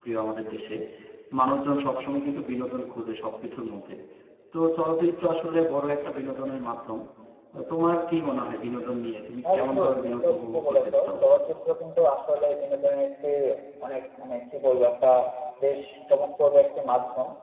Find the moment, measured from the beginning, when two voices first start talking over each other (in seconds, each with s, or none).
9.4 s